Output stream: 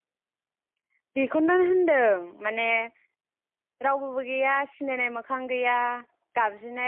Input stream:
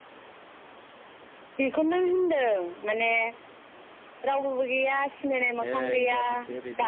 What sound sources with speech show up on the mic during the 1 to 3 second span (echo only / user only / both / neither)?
echo only